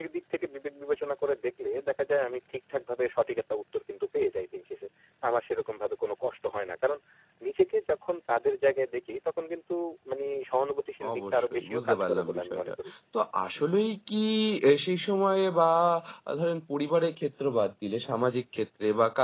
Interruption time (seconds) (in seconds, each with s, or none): 11.0 s